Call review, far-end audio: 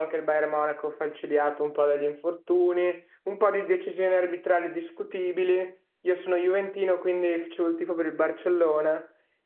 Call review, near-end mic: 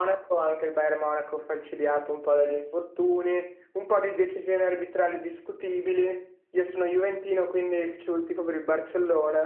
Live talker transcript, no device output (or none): none